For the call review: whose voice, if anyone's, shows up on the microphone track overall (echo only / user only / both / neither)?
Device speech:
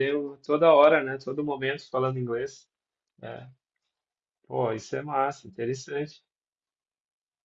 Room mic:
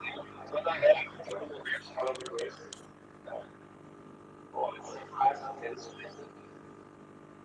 echo only